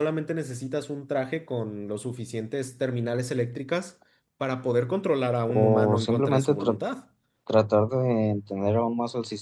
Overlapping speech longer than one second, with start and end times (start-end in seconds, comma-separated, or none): 5.5-6.8